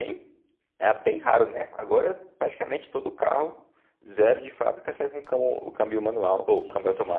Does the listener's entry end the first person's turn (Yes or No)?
Yes